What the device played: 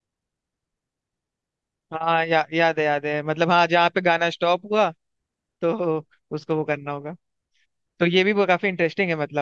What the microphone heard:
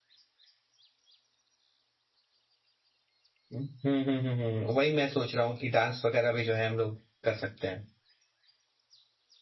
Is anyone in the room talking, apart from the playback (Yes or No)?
Yes